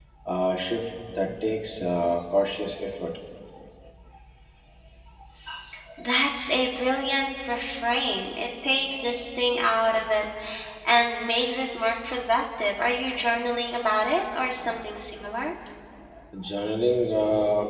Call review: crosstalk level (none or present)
none